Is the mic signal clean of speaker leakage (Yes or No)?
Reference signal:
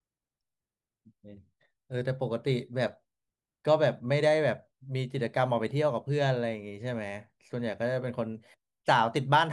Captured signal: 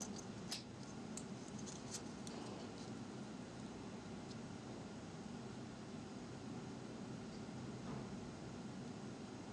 Yes